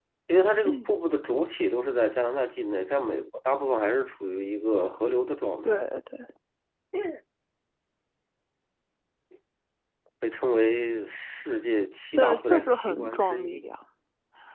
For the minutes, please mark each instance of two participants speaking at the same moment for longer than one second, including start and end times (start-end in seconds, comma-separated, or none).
12.2-13.7